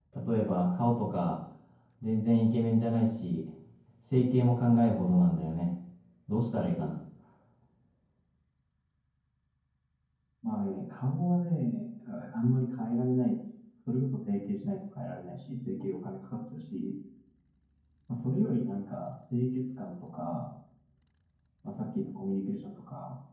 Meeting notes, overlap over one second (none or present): none